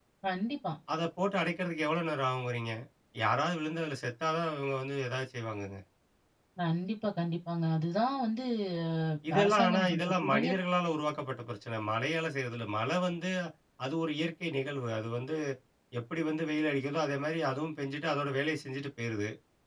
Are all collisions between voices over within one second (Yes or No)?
No